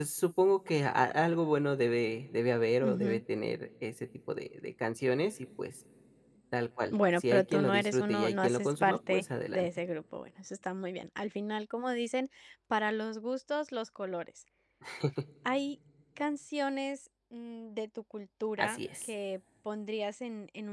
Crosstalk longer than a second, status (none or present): present